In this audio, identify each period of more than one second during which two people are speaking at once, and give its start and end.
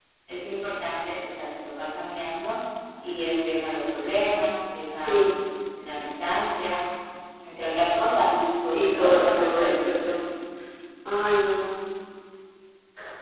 8.7-9.9

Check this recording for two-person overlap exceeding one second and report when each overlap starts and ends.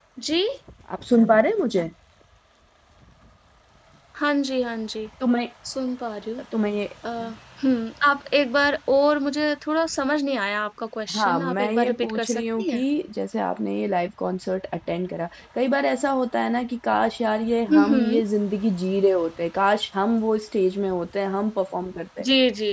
11.1-12.8

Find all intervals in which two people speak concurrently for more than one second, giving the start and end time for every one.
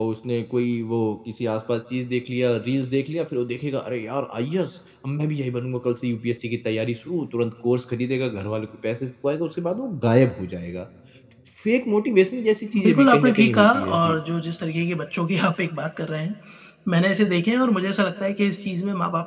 12.8-14.2

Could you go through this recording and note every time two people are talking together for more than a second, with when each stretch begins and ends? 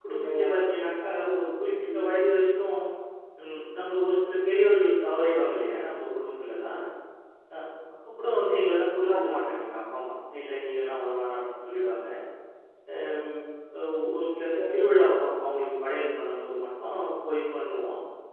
none

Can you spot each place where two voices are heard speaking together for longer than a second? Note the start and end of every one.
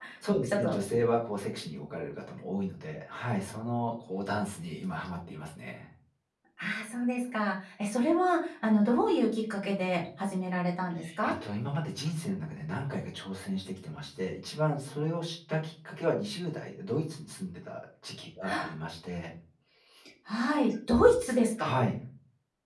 none

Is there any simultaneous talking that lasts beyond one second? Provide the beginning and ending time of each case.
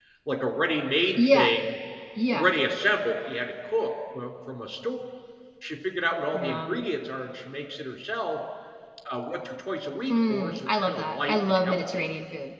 10.1-12.1

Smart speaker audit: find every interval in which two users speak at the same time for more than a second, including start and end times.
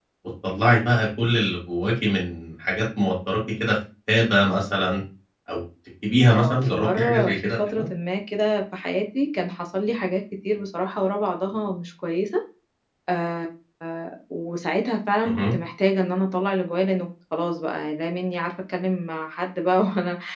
6.3-7.9

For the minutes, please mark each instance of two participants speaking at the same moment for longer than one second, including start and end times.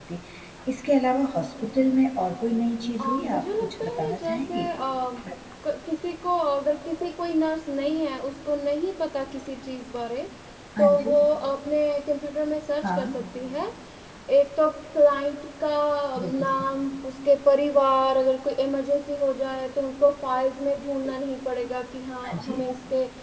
3.0-4.7

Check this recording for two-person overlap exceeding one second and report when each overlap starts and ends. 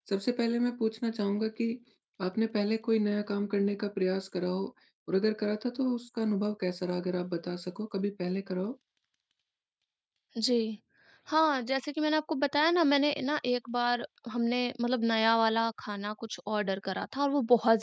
none

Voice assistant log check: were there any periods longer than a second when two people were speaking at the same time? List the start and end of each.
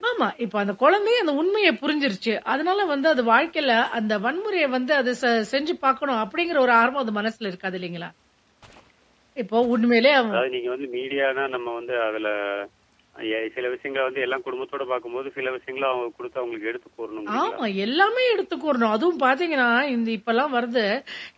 none

